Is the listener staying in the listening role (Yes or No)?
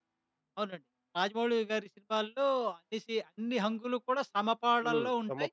No